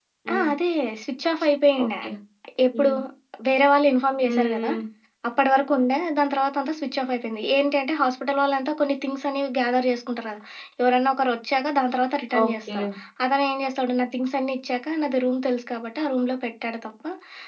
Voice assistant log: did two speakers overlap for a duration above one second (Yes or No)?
No